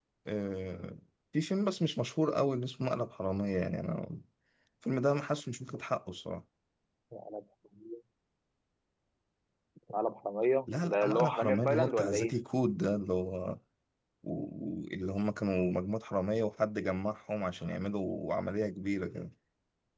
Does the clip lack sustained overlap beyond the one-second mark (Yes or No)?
No